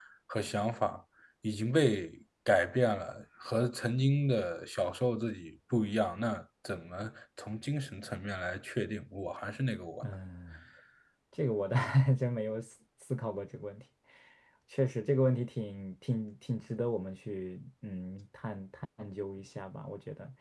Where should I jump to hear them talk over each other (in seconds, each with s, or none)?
none